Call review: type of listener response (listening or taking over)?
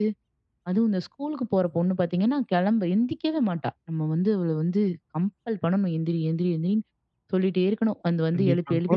taking over